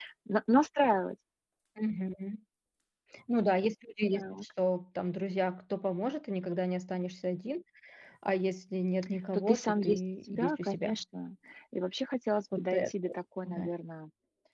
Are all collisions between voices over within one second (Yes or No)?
No